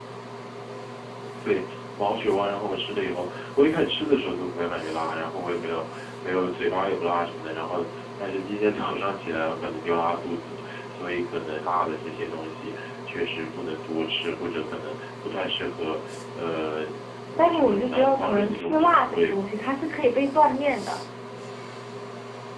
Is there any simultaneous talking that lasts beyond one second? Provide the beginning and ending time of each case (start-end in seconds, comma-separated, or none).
17.4-19.4